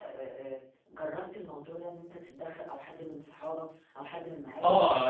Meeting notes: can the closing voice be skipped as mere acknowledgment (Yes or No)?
No